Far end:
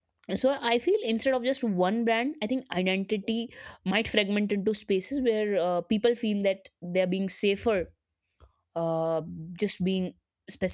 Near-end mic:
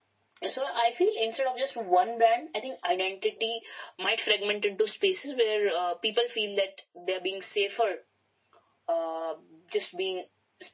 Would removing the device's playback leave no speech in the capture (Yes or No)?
Yes